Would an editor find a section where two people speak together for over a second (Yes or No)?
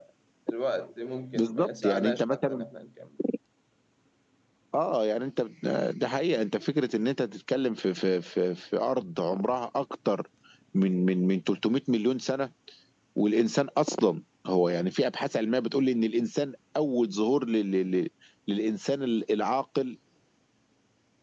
Yes